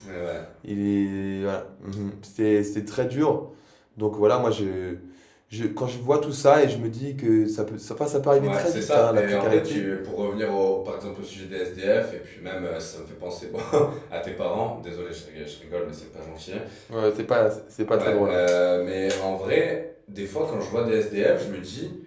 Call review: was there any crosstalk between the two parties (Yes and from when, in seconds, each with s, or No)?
Yes, from 8.4 s